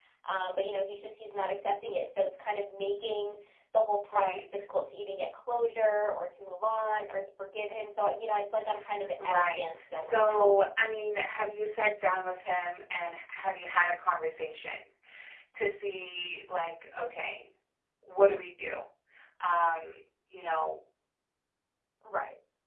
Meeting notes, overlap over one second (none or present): present